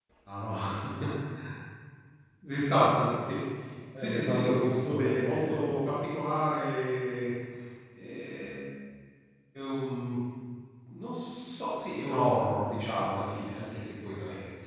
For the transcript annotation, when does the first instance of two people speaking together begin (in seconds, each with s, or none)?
4.0 s